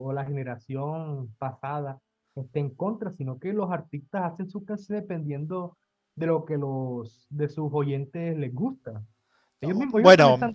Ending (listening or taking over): taking over